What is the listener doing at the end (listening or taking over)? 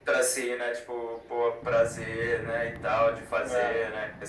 listening